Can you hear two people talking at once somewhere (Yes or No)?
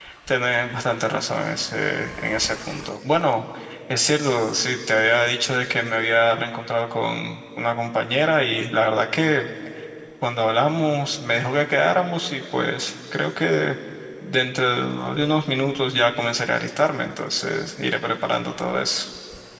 No